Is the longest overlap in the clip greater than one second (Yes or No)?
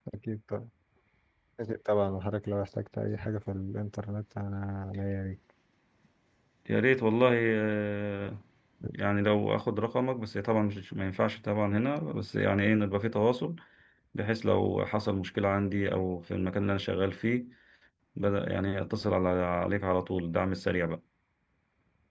No